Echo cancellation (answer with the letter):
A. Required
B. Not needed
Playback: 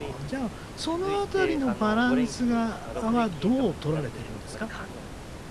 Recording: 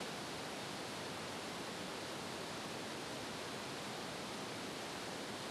B